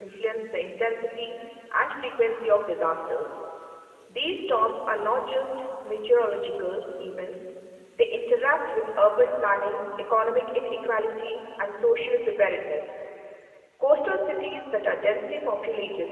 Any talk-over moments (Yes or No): No